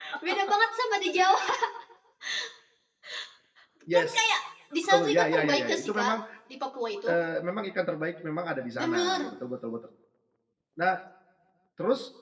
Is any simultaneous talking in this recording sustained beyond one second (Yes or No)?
Yes